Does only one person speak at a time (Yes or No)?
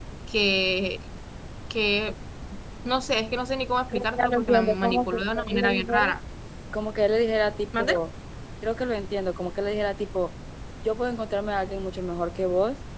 No